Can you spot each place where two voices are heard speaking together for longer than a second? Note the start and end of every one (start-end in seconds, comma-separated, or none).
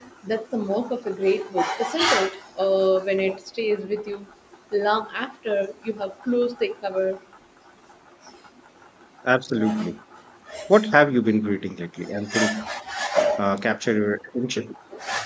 none